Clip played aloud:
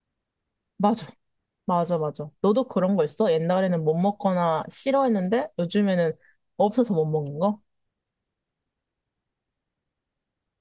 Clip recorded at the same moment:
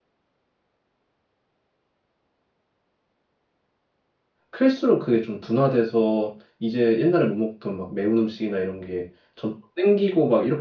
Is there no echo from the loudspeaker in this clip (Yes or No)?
Yes